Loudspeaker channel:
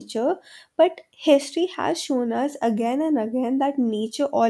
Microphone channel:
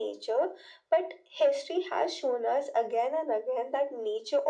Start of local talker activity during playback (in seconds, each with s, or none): none